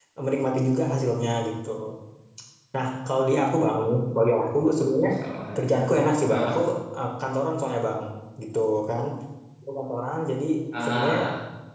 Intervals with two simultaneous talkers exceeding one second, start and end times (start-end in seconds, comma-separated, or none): none